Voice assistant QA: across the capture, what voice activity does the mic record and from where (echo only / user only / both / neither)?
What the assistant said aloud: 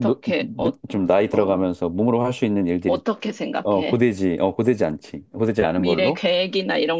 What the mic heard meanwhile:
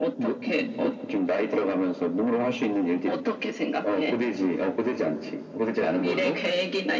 echo only